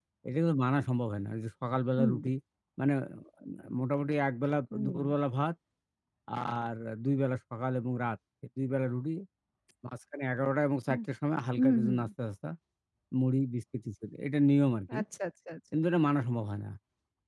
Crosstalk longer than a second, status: none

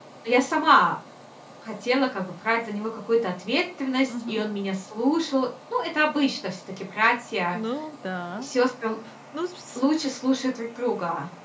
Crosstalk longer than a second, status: none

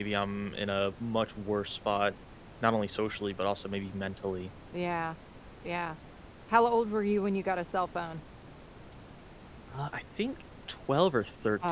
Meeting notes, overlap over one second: none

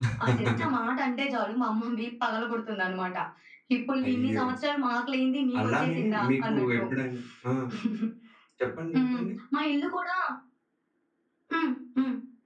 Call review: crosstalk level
present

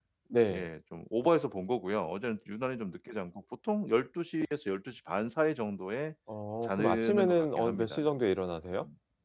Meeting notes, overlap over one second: present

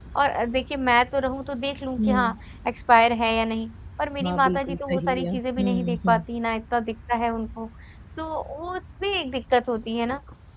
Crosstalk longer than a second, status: present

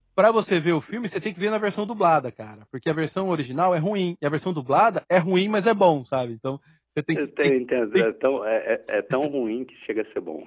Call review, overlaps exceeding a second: none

